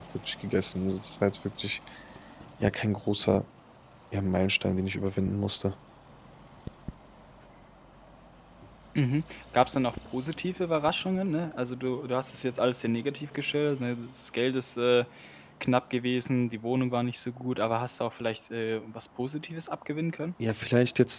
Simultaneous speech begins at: none

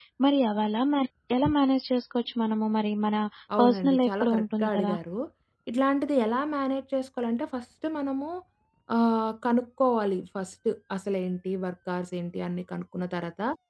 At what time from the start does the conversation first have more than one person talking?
4 s

